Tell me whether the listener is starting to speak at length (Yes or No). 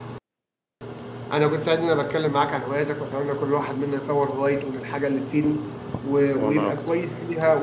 No